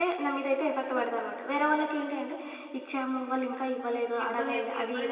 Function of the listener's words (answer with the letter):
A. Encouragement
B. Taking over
B